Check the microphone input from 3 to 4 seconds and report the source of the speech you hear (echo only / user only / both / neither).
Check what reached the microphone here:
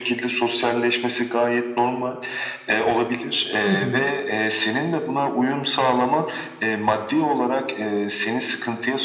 both